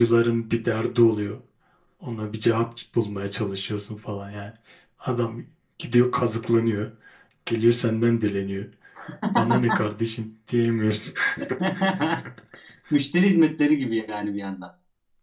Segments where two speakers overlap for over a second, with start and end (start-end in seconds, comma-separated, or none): none